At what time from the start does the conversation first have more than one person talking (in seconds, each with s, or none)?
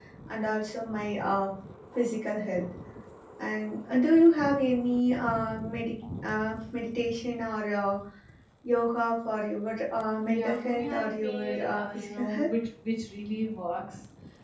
10.2 s